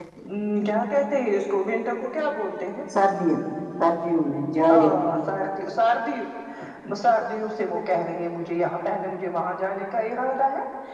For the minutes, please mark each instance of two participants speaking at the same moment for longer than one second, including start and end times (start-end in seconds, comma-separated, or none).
none